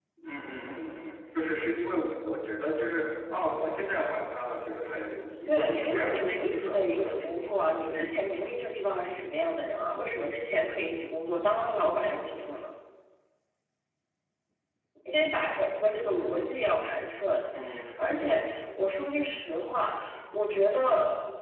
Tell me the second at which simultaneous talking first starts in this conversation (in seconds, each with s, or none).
5.5 s